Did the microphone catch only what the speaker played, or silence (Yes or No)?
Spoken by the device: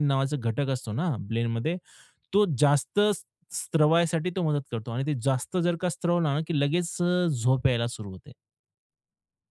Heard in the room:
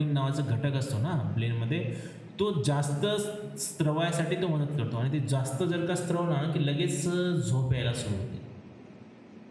Yes